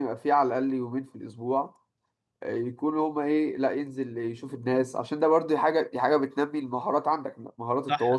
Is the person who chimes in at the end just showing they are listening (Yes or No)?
No